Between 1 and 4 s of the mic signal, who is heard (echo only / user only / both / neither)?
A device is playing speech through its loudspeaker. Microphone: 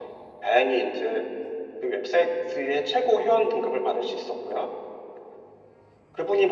echo only